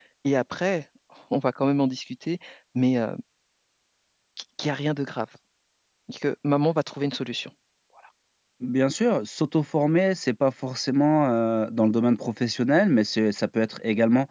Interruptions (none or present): none